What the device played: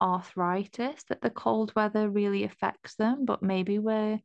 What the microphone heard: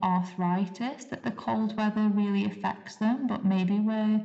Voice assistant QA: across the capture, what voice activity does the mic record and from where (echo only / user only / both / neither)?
echo only